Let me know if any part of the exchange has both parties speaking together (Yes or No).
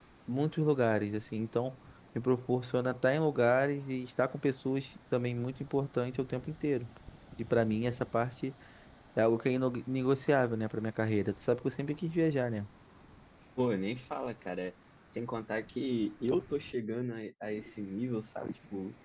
No